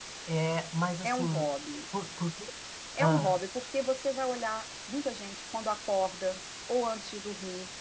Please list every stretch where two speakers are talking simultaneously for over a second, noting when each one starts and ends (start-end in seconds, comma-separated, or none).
none